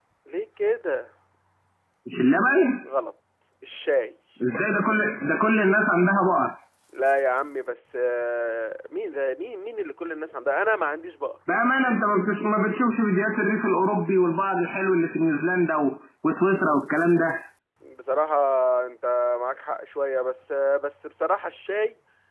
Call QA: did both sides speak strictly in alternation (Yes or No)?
Yes